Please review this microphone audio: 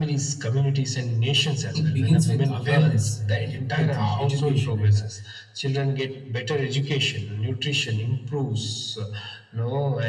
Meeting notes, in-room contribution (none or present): present